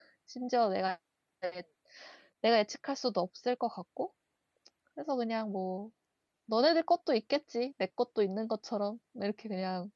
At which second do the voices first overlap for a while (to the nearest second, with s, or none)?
none